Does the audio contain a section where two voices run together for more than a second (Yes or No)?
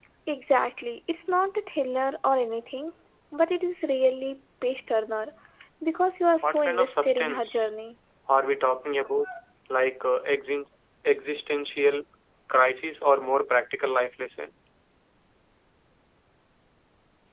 Yes